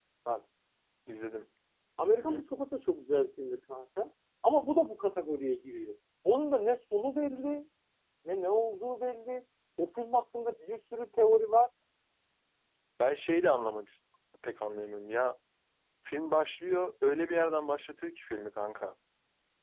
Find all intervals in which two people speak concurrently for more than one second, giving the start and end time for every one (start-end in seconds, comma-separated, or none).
none